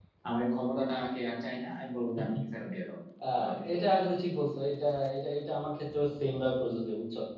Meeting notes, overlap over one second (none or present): none